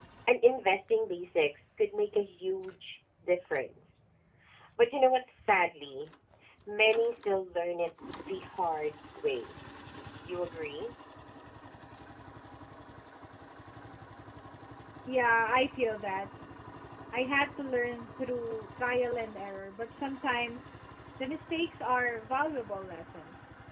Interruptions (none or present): none